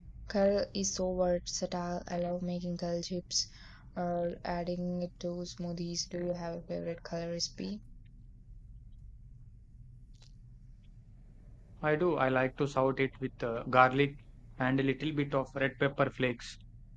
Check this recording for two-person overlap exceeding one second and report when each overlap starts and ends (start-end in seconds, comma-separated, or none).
none